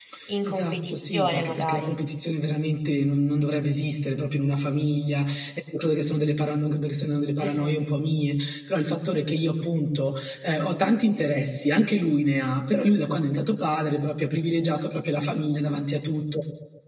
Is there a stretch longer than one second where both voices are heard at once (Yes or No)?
Yes